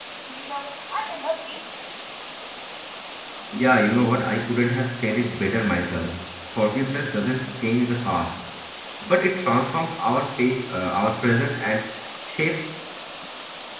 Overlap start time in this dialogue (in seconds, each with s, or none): none